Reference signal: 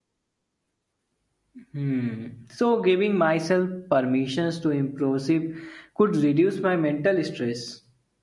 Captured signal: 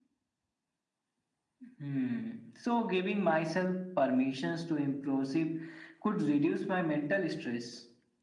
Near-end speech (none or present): none